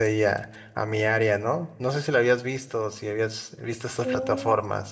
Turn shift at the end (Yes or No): Yes